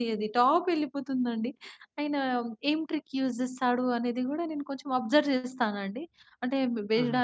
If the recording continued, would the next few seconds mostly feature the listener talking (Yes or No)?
No